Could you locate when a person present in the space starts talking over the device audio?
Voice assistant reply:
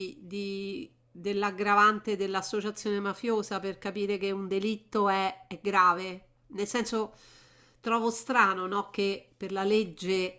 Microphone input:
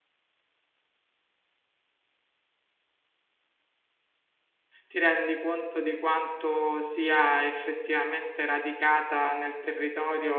4.9 s

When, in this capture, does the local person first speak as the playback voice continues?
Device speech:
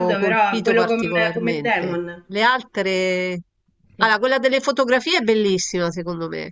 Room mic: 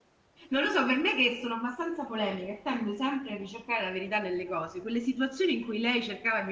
0.5 s

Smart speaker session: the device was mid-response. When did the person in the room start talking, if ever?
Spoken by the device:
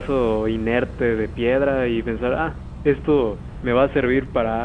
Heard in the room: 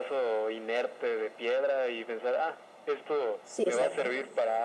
3.4 s

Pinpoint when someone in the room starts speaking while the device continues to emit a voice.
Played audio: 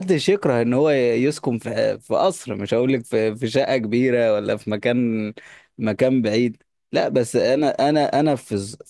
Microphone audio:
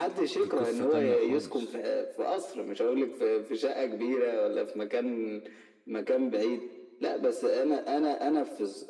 0.4 s

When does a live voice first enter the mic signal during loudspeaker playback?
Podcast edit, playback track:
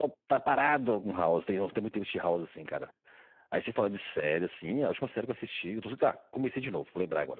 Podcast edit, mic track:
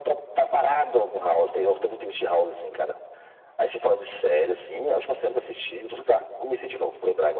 none

